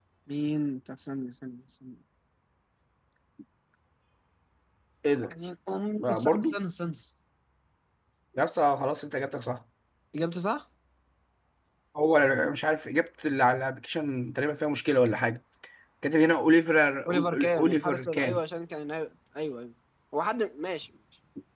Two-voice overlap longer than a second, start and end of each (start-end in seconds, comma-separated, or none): 17.1-18.4